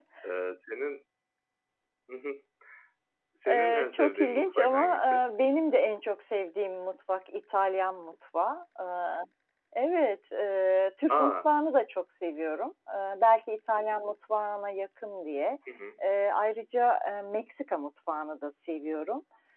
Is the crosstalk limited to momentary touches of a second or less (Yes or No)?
No